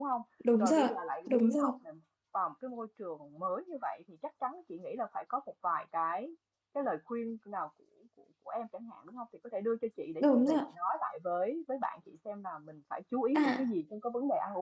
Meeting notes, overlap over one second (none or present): none